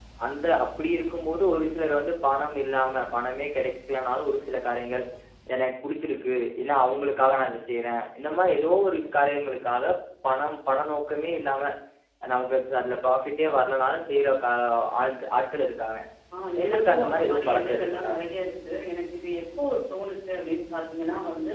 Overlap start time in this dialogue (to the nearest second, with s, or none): 17 s